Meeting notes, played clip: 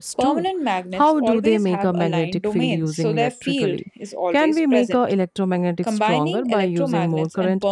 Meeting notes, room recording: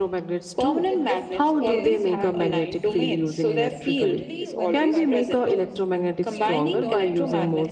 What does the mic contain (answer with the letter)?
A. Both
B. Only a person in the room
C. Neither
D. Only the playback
A